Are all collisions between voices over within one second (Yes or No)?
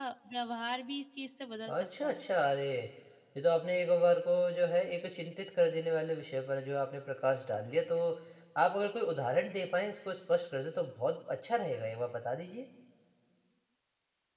Yes